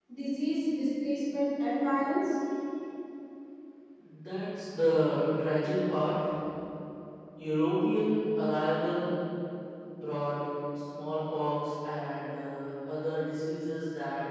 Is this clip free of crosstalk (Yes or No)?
Yes